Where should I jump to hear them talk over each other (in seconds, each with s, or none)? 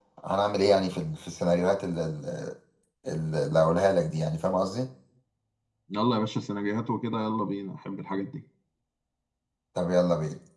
none